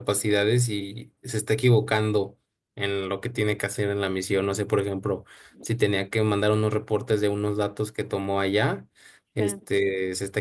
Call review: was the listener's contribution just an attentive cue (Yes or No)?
Yes